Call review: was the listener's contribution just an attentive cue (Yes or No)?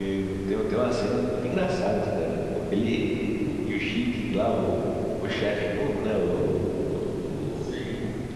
Yes